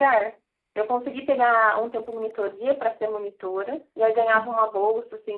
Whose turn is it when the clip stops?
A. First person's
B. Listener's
A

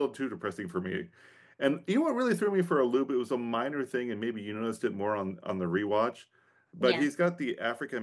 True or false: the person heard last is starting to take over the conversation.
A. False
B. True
A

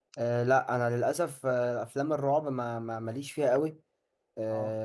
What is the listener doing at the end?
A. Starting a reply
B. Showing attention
B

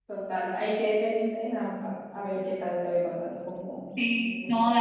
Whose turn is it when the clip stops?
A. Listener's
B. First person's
A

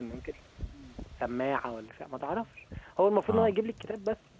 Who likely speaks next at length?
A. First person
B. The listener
A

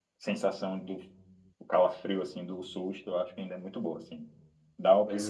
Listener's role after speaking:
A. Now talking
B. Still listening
B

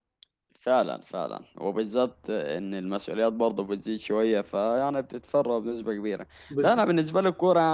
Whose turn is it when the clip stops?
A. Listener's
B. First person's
B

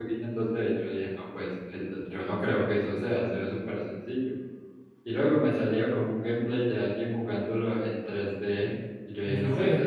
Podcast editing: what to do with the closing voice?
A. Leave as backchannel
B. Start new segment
A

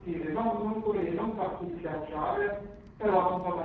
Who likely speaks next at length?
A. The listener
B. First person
B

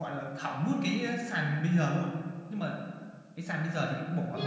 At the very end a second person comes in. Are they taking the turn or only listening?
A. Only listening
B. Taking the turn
B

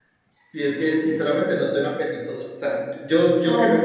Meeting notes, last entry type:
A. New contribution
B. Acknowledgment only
B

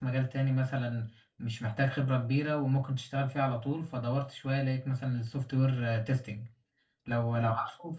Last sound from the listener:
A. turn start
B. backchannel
B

